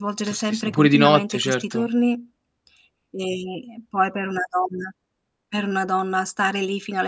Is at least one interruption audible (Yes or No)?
Yes